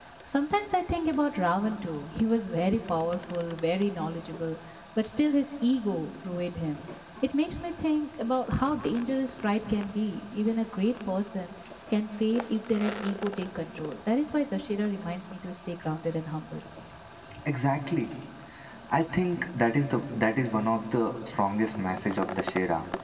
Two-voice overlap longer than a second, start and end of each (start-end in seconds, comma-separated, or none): none